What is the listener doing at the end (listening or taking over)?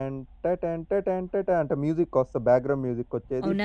taking over